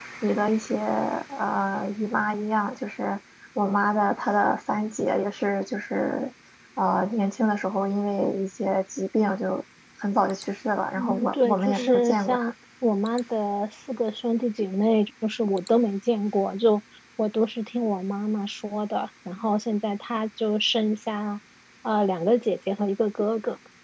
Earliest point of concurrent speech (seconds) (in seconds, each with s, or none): 11.0 s